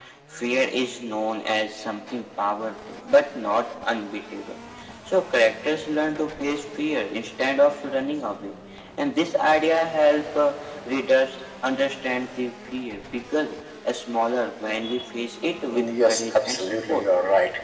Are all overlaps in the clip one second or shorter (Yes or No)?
No